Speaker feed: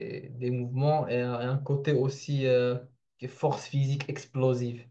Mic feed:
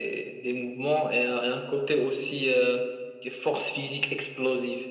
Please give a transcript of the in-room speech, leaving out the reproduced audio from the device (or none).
none